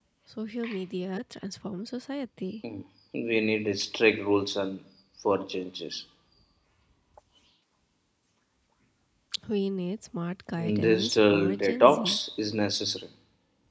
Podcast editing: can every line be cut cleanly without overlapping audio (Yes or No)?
No